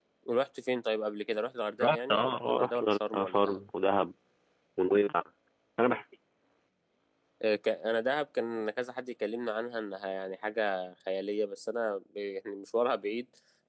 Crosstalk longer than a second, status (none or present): present